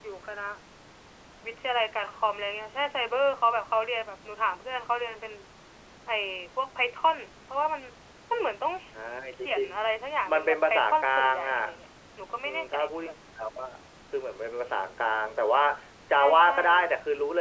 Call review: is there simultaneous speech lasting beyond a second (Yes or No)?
Yes